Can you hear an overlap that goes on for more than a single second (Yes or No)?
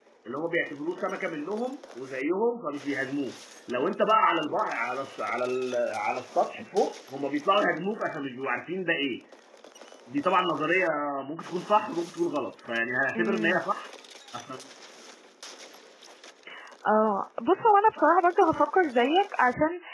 No